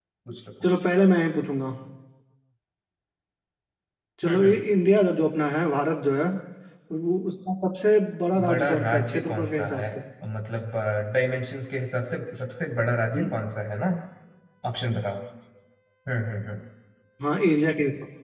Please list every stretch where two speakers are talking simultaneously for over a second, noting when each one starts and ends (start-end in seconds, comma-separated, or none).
8.3-9.9